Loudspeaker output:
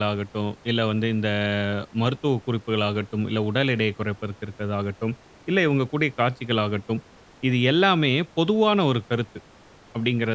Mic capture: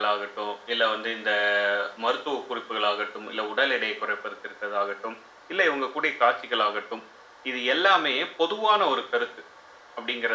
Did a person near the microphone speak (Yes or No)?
No